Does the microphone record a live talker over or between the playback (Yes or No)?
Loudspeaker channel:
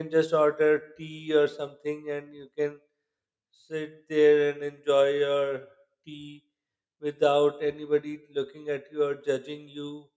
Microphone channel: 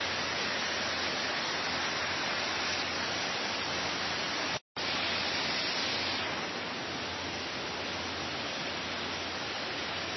No